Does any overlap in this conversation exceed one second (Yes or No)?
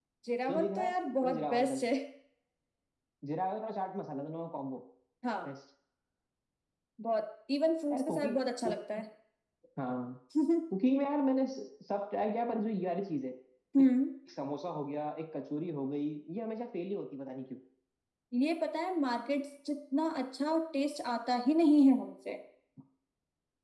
Yes